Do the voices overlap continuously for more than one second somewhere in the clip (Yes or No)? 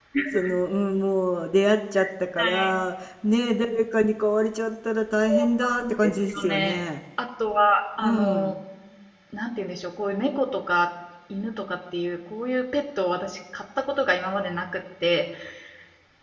Yes